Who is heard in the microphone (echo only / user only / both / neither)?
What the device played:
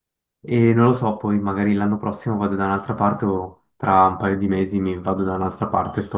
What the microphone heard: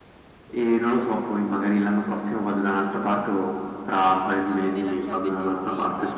both